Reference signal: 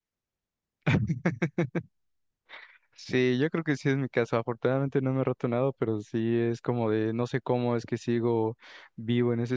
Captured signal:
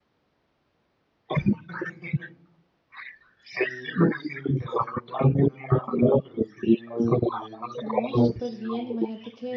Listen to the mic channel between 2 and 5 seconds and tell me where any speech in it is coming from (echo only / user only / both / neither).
echo only